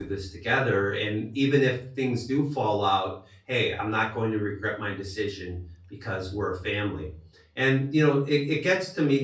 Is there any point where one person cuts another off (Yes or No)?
No